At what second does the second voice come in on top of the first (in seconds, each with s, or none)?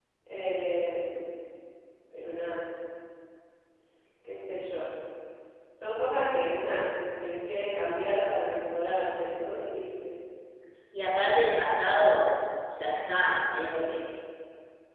none